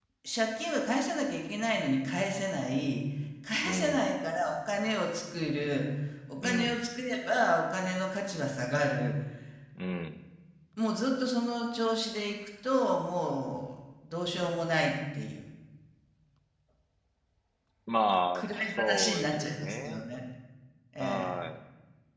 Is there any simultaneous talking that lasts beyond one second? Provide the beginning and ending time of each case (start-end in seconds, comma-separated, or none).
18.3-20.0